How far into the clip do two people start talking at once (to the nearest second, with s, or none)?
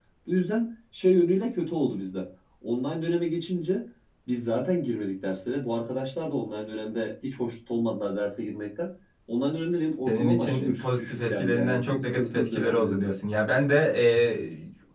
10 s